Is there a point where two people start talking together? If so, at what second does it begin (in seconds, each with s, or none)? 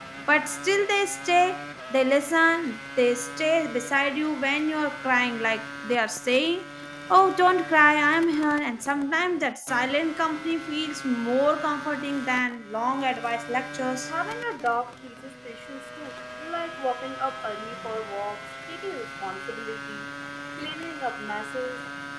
none